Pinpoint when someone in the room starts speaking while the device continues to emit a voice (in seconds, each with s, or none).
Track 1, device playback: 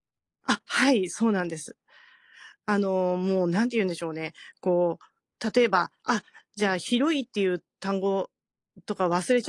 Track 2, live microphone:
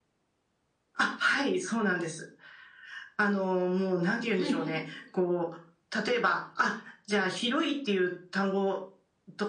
4.3 s